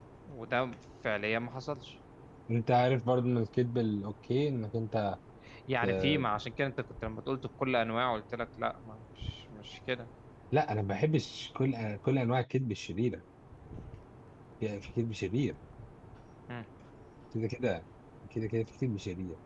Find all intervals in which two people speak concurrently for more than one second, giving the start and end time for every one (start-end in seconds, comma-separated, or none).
none